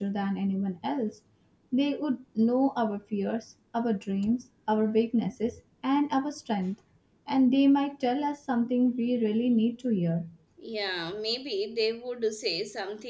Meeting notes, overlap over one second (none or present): none